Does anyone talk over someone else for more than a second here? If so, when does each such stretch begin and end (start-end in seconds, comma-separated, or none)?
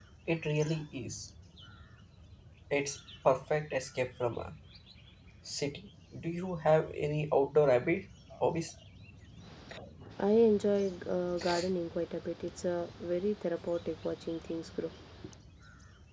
none